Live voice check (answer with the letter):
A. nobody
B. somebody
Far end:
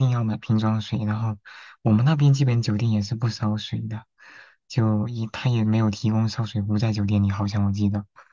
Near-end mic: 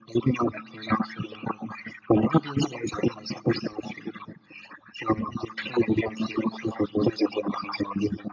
A